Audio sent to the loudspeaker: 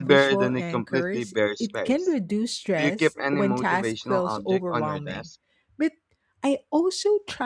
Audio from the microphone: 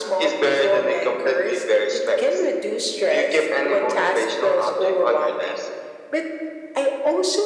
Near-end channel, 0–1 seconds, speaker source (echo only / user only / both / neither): echo only